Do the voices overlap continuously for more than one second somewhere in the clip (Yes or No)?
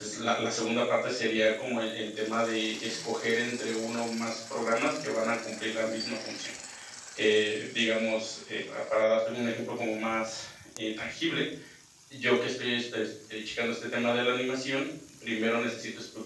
No